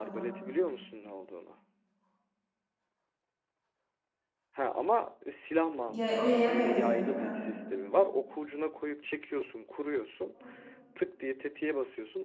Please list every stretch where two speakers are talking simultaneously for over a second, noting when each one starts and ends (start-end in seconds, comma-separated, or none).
5.9-7.4